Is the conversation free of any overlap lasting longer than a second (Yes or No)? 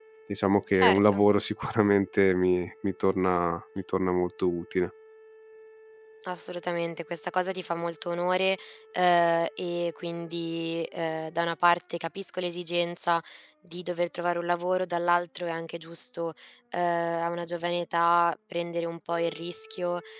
Yes